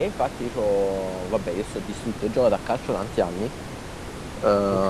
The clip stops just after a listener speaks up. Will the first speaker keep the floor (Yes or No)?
Yes